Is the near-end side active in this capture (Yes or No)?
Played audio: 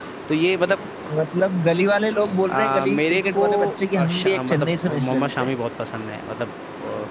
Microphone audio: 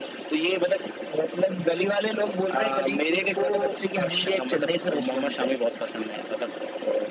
No